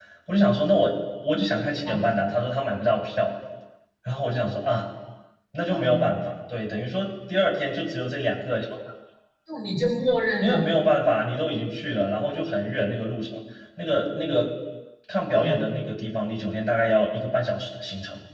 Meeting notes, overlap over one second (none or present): none